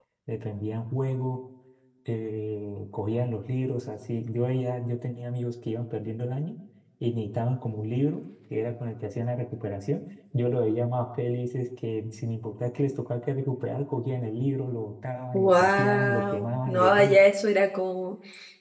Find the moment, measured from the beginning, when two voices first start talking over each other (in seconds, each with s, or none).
15.3 s